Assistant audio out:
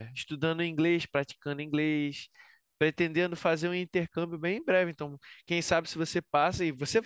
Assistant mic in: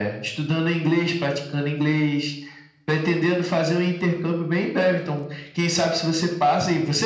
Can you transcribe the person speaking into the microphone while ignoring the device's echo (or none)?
none